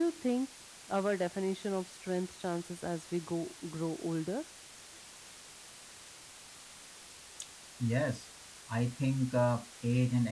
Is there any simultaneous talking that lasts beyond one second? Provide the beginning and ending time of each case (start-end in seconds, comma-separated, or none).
none